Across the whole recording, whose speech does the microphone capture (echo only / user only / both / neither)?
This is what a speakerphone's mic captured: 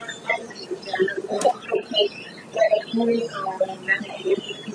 echo only